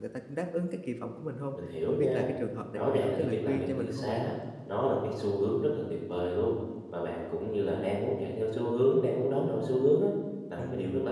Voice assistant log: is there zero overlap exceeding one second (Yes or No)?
No